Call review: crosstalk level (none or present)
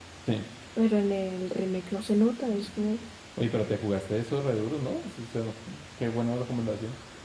none